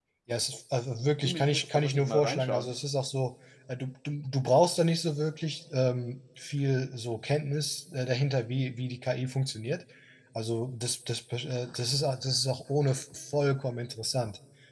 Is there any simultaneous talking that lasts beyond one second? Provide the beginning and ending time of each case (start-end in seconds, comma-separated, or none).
1.2-2.7